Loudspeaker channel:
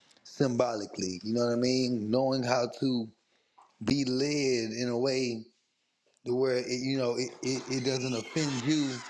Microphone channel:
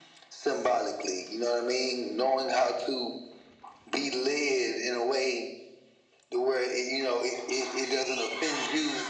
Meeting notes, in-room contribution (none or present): none